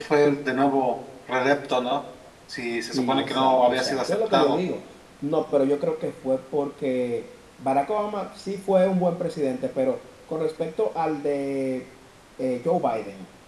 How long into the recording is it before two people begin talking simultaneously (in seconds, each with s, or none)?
2.9 s